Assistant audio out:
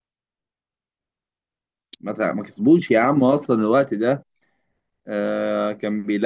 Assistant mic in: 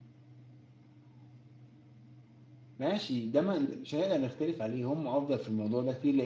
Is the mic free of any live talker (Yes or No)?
No